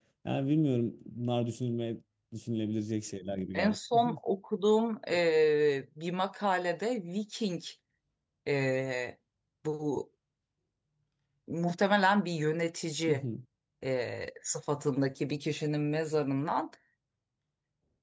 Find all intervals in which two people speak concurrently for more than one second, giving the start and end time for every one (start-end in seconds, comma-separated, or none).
none